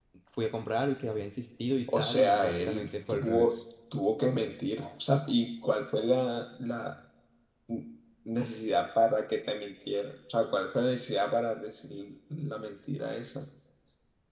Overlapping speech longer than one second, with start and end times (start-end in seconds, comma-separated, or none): 1.9-3.6